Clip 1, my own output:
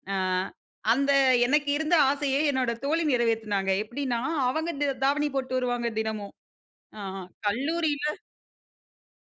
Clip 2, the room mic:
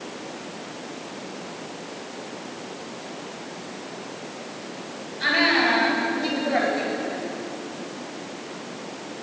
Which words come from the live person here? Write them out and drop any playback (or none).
ஆனா முடி மட்டும் வளத்திட்டுருந்தேன்.